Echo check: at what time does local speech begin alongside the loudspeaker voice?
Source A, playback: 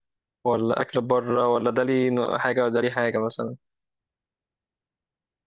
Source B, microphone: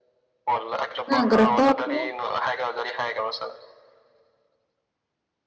1 s

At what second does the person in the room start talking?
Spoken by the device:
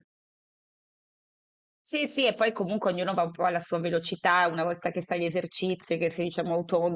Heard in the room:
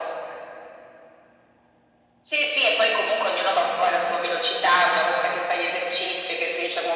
none

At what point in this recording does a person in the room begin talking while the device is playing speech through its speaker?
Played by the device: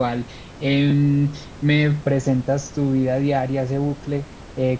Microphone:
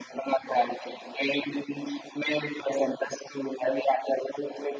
none

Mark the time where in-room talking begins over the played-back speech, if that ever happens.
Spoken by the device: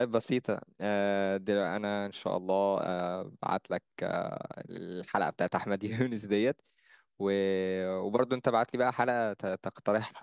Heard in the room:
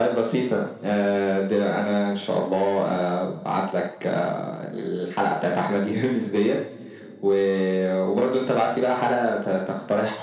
none

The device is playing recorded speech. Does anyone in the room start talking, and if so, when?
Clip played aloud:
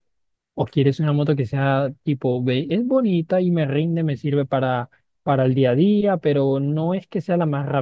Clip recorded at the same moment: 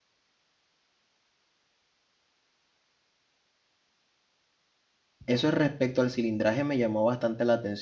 5 s

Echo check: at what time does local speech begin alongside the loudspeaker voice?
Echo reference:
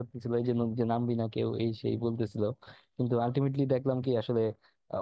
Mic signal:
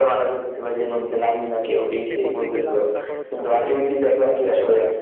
2 s

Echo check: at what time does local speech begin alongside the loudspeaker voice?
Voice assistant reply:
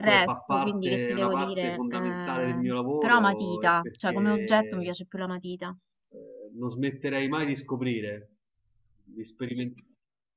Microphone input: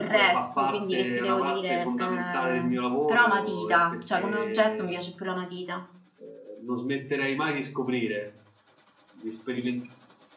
none

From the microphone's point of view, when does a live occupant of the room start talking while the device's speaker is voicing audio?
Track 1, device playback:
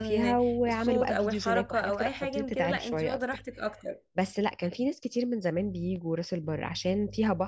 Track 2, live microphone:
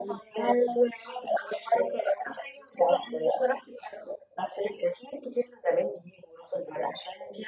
none

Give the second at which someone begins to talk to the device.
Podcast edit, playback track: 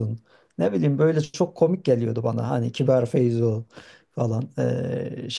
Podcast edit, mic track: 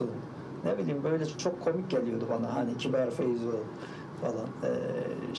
none

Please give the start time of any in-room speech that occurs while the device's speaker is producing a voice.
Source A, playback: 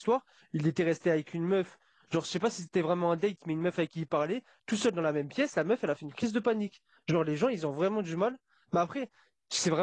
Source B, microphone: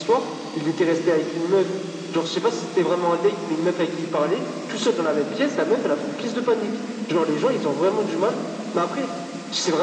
none

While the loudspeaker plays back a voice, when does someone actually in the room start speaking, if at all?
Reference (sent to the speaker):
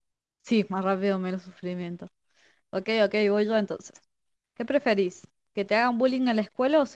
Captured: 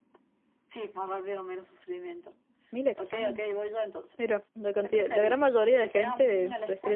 3 s

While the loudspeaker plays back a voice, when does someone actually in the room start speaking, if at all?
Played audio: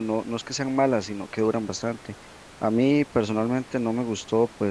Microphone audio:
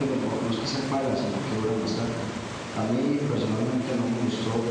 none

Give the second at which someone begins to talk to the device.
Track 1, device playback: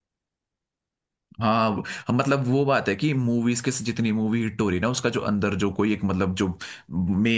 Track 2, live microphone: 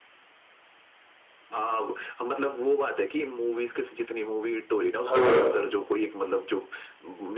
5 s

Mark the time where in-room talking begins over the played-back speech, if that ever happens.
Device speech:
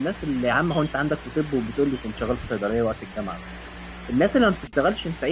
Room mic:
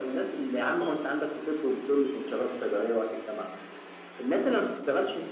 none

